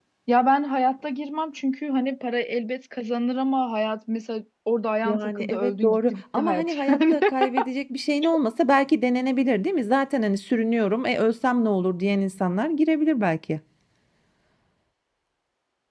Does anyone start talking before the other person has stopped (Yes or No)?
Yes